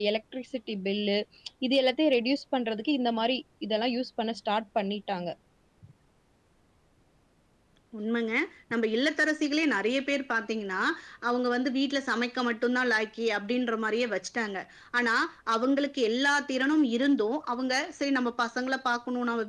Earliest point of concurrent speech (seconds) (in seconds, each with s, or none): none